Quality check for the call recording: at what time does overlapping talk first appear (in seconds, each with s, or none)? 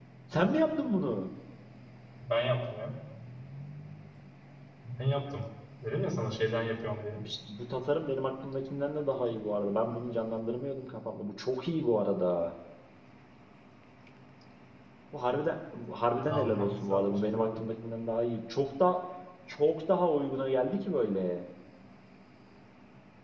16.3 s